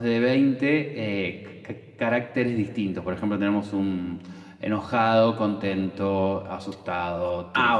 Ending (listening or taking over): taking over